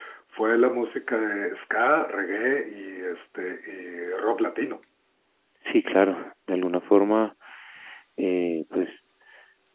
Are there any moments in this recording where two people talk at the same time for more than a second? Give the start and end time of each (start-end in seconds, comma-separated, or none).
none